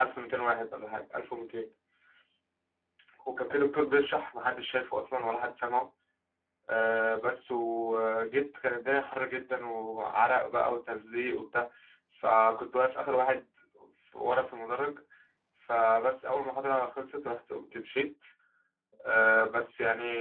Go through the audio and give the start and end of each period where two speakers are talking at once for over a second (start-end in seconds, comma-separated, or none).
none